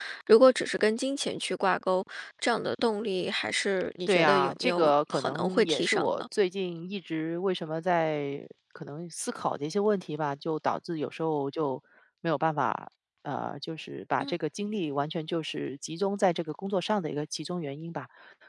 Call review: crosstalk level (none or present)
present